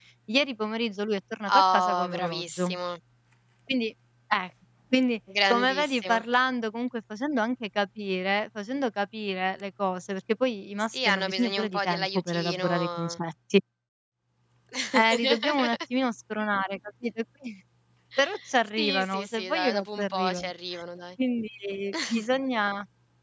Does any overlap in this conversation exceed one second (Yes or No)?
Yes